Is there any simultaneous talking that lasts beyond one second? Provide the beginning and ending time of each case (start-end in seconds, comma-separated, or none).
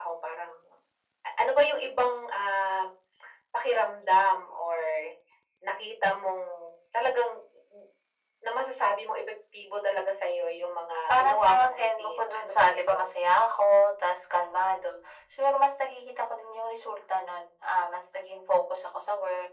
11.1-13.2